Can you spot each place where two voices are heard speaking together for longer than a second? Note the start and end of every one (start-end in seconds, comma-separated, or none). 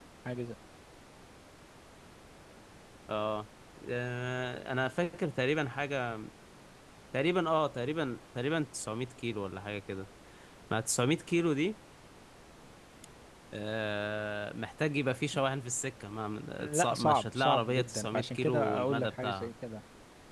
16.6-19.5